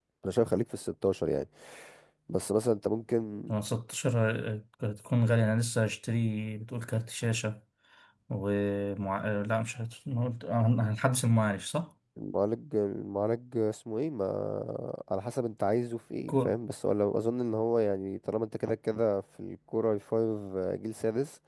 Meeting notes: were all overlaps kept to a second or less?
Yes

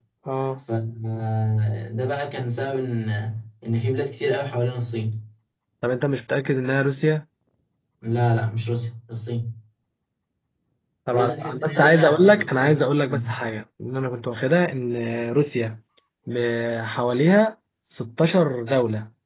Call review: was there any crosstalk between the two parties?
Yes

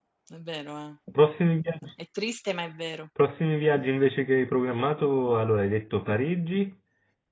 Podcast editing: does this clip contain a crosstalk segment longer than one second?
No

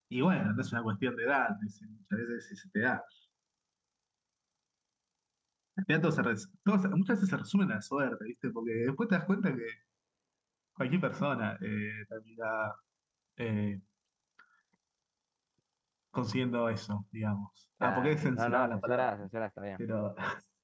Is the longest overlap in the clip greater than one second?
Yes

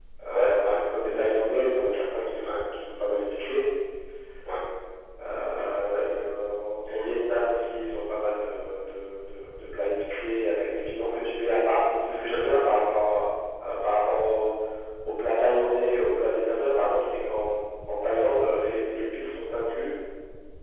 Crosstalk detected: Yes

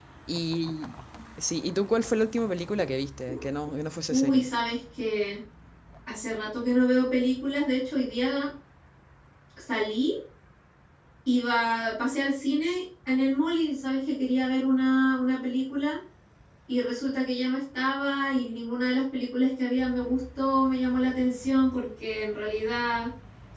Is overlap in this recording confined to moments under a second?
Yes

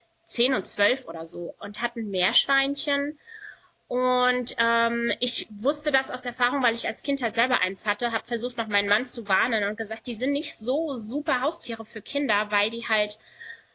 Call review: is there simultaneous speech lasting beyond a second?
No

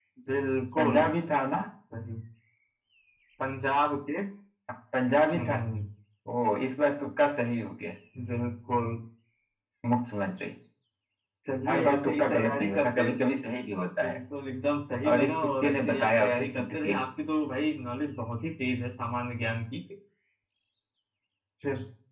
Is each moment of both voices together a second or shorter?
No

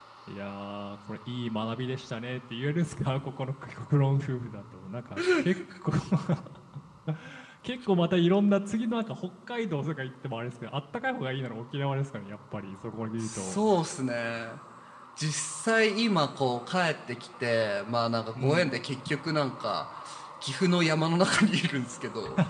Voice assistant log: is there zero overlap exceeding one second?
Yes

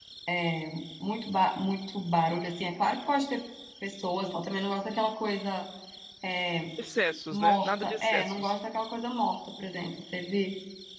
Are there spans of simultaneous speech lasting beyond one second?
Yes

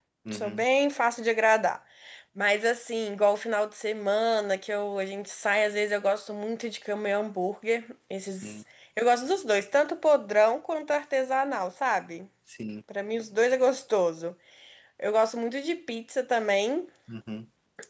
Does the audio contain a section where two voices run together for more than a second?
No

